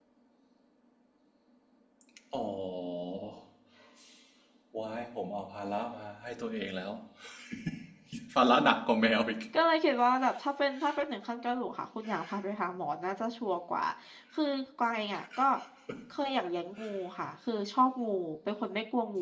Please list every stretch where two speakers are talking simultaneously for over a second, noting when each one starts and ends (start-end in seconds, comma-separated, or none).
none